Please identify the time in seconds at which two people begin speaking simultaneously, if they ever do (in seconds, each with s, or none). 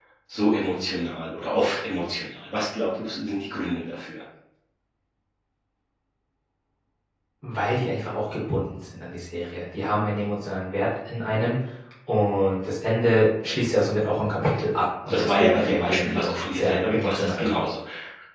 15.1 s